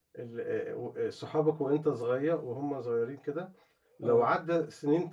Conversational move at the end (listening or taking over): listening